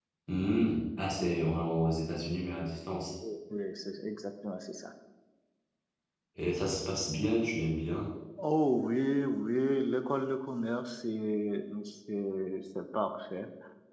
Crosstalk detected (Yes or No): No